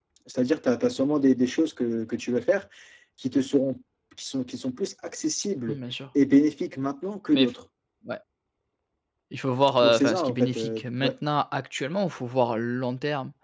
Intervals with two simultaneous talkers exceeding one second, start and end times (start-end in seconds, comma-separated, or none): 9.8-11.1